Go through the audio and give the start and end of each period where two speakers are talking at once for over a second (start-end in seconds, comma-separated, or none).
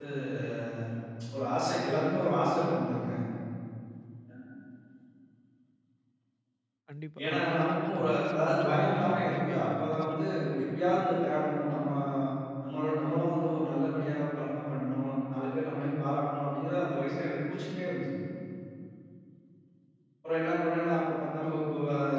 7.2-10.2